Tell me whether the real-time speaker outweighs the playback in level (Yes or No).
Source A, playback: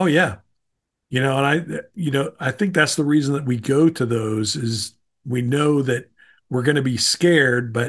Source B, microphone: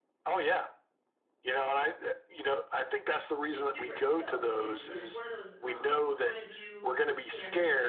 No